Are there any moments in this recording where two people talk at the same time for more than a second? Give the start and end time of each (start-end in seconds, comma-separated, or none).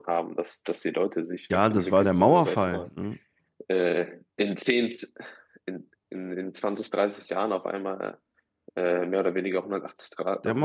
1.5-2.9